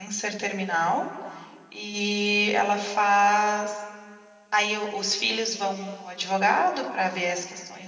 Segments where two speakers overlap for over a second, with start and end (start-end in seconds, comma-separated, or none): none